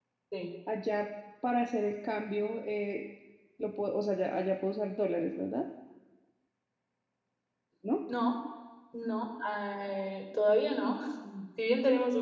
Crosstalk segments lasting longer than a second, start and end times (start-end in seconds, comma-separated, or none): none